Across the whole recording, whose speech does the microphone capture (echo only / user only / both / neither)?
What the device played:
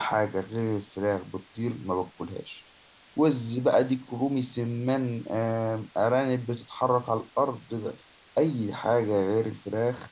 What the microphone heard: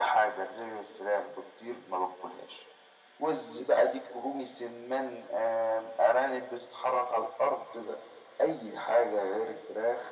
echo only